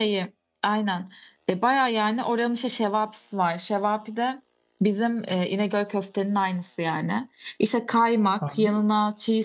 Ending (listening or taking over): listening